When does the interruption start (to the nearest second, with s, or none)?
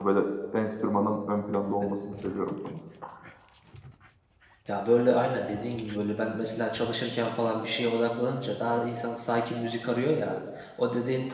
none